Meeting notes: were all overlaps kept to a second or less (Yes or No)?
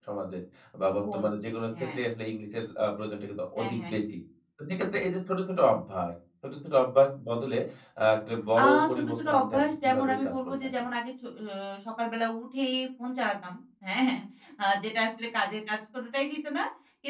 No